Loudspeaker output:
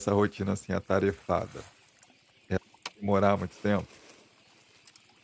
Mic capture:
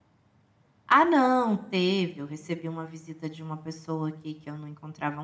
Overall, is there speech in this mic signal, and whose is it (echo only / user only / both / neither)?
user only